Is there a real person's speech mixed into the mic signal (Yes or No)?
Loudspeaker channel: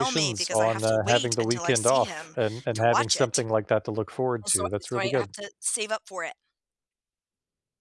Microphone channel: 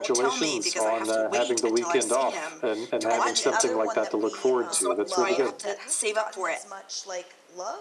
Yes